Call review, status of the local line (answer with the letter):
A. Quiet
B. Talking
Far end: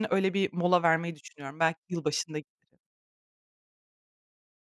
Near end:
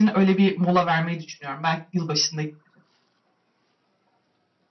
A